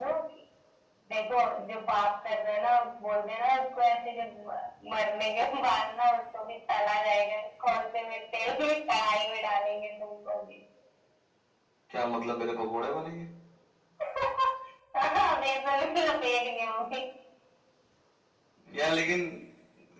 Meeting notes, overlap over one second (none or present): none